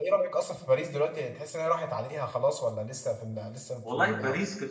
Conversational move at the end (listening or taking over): taking over